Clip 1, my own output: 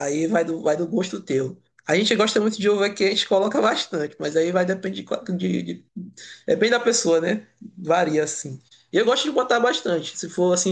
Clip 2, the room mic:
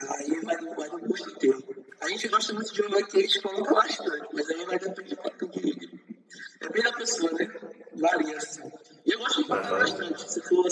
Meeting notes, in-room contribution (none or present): present